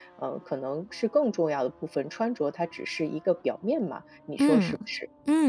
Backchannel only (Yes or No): No